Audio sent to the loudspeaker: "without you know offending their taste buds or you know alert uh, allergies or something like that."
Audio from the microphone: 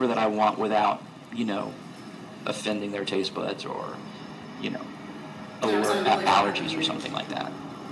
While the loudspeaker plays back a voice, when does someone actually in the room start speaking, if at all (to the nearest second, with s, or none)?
6 s